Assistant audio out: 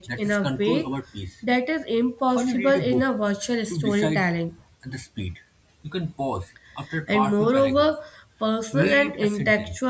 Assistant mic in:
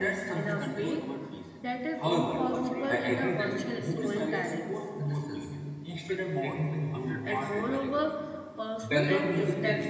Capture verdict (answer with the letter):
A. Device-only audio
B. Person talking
B